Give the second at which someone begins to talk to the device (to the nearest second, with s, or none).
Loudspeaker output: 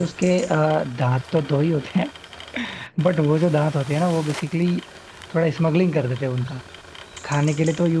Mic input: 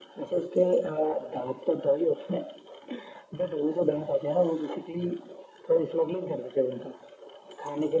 none